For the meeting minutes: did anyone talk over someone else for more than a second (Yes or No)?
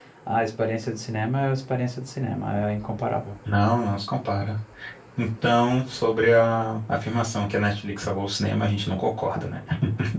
No